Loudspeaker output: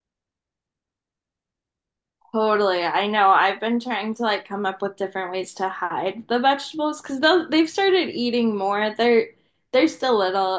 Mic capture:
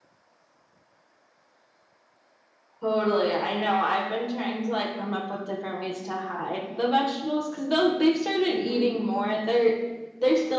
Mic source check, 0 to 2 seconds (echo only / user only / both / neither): neither